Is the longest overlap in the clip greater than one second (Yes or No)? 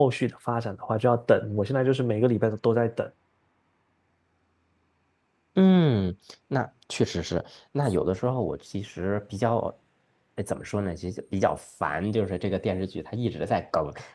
No